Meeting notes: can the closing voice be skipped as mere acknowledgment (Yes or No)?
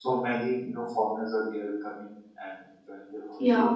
No